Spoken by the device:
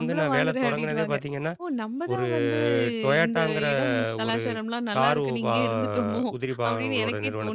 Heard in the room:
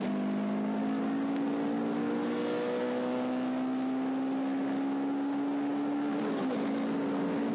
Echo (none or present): none